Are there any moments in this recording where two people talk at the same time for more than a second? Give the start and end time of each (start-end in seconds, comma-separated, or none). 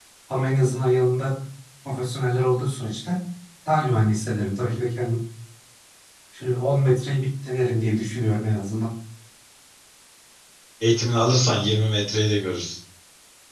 none